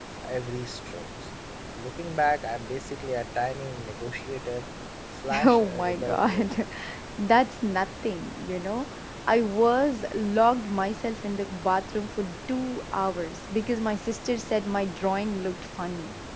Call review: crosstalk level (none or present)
present